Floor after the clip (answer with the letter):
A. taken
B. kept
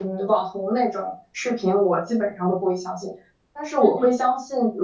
B